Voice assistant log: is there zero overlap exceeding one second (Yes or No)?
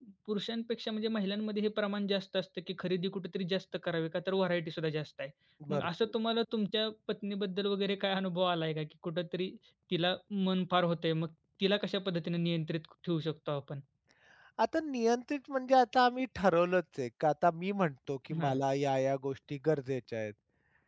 Yes